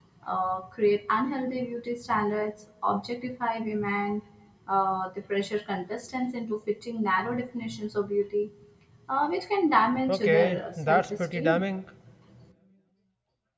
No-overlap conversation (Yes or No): No